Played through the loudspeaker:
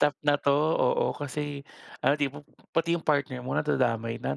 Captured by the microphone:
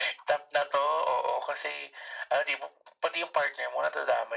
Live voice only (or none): none